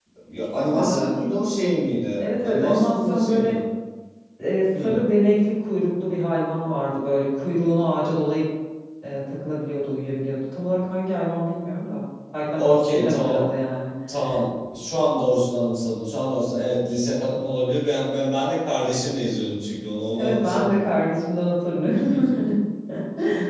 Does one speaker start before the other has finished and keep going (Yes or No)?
Yes